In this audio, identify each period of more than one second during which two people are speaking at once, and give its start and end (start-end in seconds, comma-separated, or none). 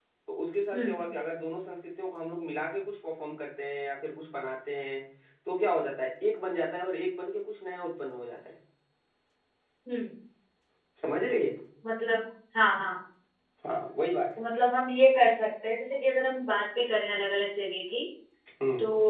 none